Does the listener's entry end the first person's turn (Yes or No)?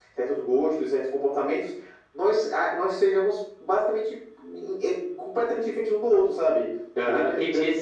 Yes